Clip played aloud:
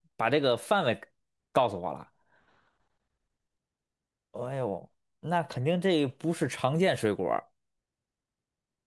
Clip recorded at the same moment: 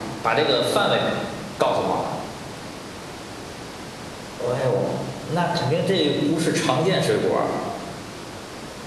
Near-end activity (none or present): none